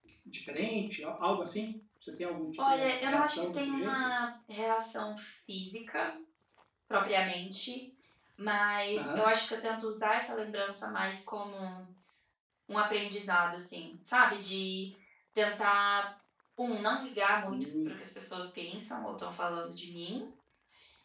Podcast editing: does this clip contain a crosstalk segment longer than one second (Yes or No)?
Yes